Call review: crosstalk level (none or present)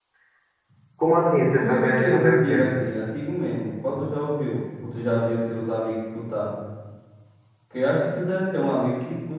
present